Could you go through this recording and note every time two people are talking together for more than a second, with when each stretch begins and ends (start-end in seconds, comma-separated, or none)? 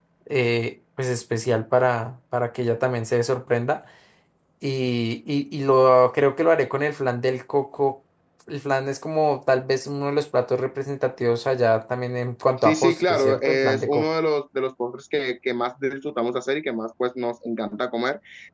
12.6-14.1